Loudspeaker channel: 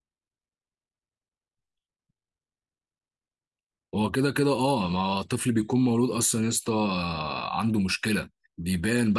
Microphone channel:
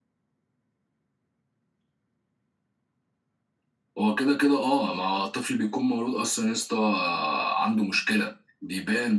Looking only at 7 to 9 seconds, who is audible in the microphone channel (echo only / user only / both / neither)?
echo only